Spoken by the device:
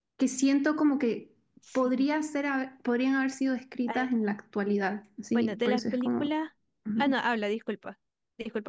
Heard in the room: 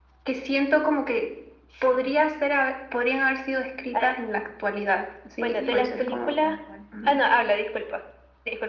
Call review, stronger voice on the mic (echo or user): echo